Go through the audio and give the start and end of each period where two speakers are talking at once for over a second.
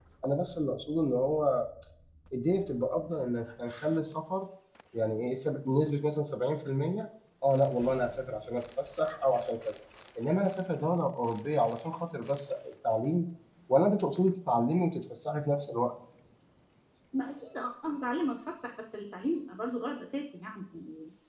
none

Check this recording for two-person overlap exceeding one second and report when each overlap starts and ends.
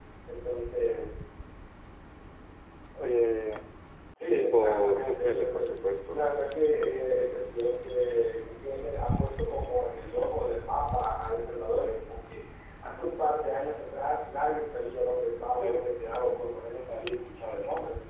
4.2-5.7

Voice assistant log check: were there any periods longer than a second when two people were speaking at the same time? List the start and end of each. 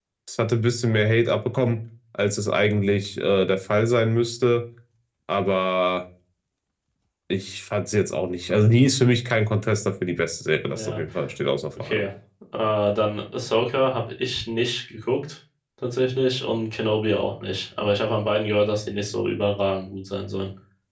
none

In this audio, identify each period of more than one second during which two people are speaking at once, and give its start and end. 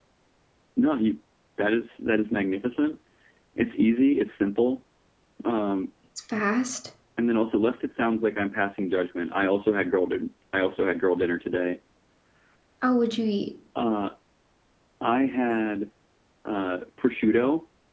none

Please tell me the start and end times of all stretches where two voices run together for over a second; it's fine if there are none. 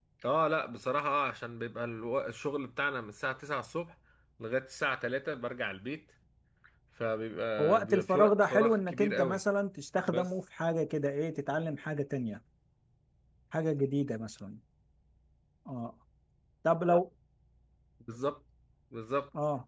7.6-9.4

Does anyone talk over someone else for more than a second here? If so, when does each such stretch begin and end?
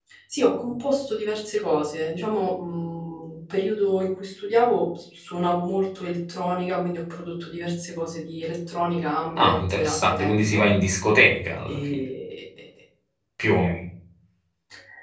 9.4-10.7

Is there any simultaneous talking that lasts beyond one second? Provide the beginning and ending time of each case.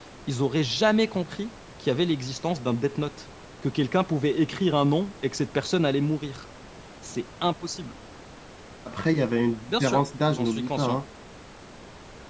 9.7-11.0

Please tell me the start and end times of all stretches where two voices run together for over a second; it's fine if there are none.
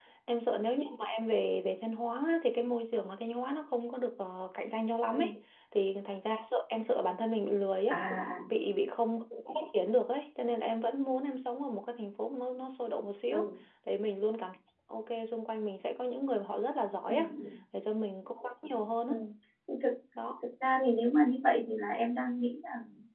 none

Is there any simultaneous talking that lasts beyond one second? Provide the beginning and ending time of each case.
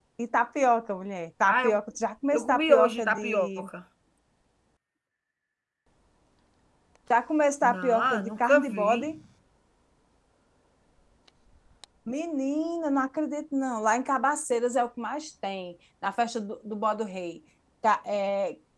2.3-3.7, 7.6-9.1

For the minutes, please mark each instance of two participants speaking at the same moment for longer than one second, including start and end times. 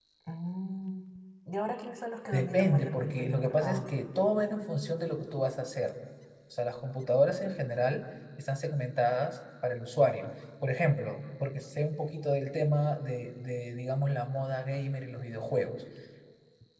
2.3-3.9

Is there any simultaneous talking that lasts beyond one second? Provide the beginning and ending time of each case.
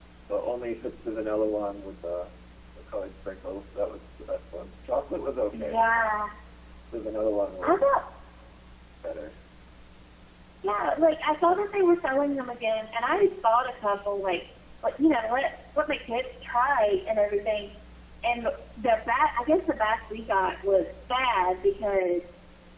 none

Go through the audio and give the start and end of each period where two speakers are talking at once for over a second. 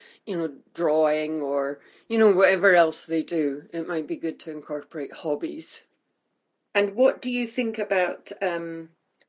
none

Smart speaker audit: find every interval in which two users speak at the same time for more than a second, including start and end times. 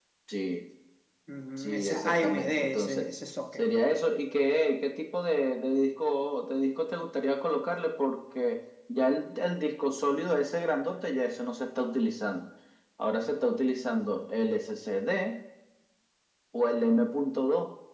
1.6-3.1

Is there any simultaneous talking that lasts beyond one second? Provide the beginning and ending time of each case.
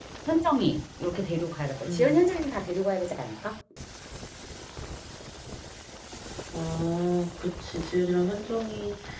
none

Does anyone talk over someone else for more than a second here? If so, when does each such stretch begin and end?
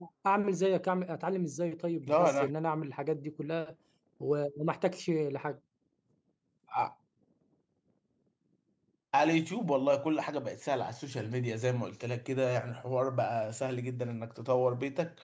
none

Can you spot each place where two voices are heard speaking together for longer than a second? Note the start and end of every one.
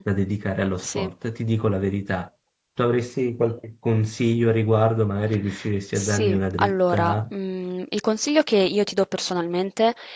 6.0-7.2

